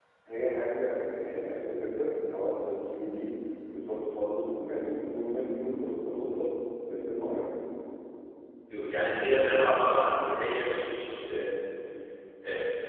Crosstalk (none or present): none